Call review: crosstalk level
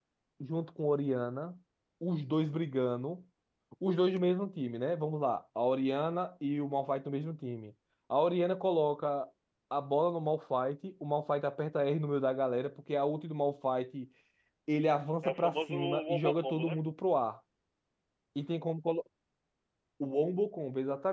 present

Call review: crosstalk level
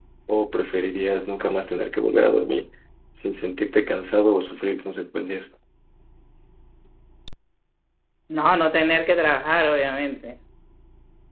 none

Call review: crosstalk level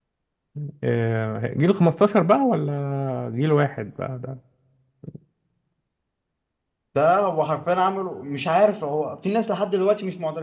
none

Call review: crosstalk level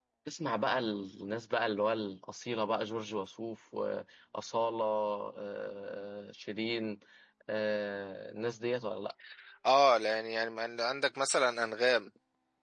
none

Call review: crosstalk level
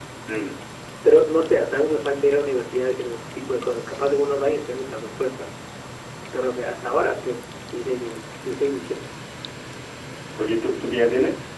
none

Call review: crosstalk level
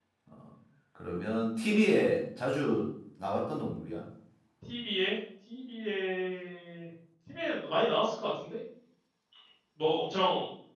none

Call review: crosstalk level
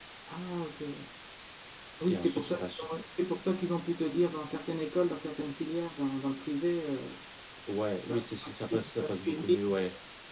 present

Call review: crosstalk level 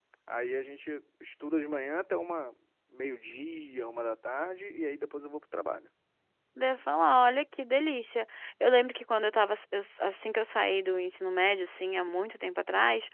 none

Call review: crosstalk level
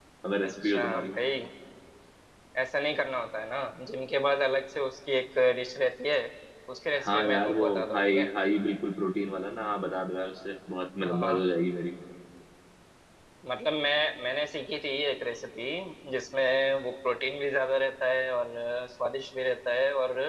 present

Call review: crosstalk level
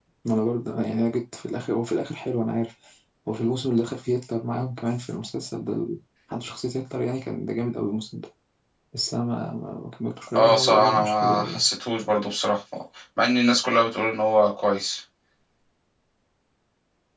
present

